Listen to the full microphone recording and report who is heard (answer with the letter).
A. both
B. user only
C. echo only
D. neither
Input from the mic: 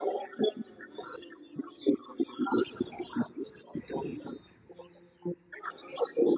C